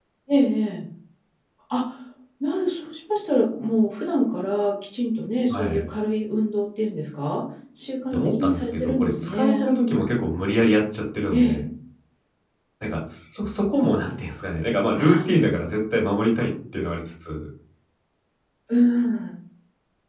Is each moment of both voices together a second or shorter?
No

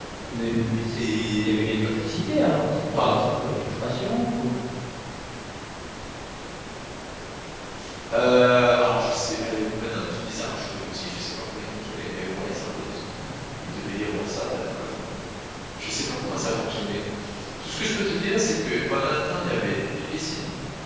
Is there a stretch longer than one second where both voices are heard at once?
No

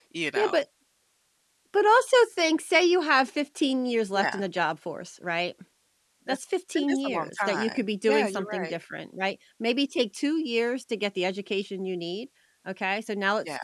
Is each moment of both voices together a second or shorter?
No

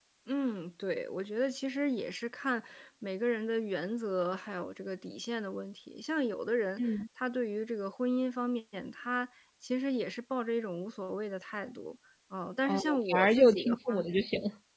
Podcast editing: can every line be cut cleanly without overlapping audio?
No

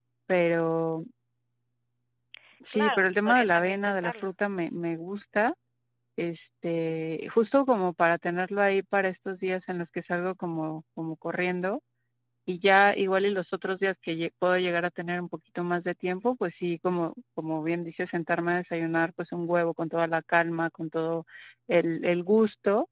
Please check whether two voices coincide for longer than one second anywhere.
Yes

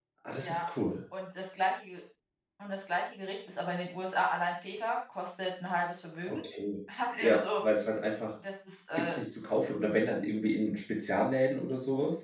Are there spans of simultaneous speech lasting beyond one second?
No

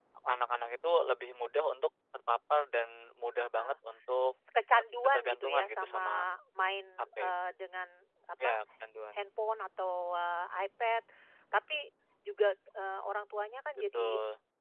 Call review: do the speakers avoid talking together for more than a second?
No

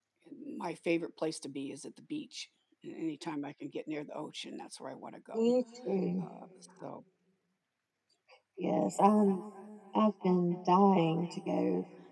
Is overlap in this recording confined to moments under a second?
Yes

